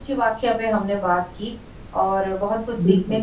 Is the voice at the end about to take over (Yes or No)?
No